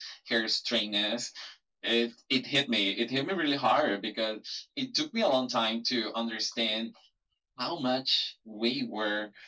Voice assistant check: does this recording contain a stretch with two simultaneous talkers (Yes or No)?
No